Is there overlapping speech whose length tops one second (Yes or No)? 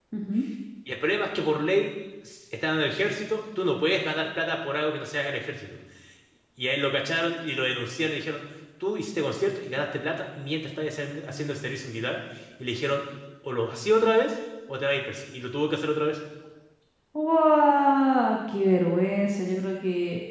No